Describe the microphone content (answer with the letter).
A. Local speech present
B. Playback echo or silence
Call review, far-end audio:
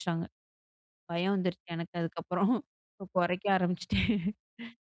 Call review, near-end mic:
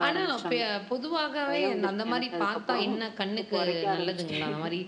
A